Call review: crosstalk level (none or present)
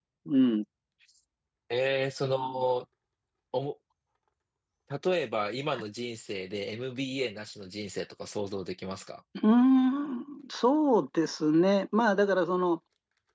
none